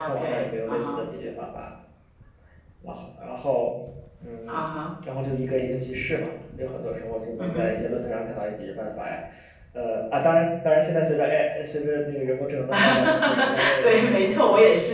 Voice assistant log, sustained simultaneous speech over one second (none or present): present